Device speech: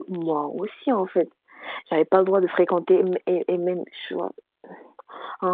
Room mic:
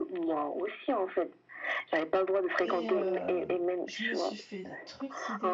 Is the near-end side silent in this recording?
No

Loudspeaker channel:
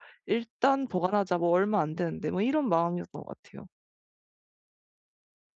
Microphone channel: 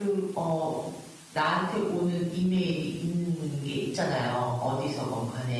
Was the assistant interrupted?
Yes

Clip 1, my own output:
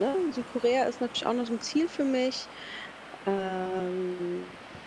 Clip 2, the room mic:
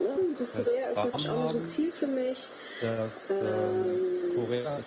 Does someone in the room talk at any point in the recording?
Yes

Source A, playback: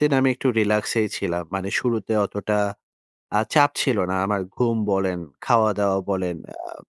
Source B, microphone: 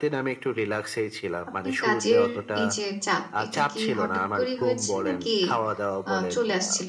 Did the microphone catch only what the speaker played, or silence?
No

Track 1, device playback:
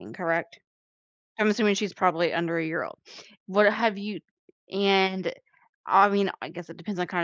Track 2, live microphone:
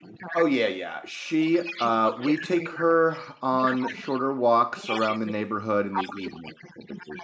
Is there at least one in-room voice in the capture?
Yes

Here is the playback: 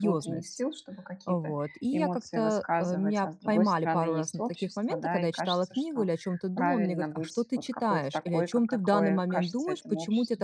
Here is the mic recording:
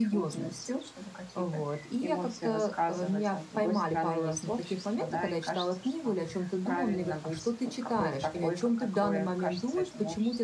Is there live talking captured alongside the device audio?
No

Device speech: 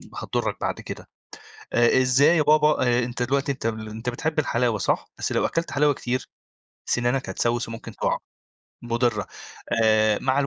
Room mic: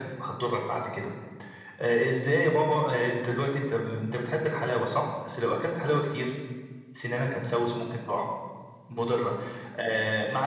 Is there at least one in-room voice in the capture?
No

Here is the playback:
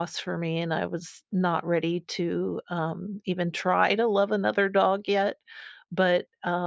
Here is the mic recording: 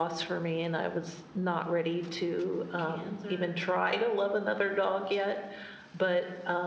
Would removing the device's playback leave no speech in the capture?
No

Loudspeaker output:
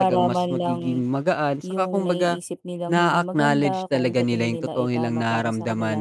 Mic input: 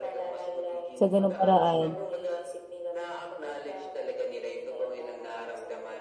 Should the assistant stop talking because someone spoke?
Yes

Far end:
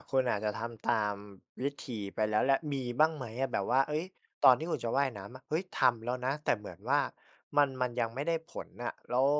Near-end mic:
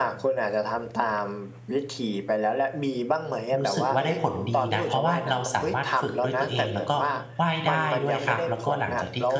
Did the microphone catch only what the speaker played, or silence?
No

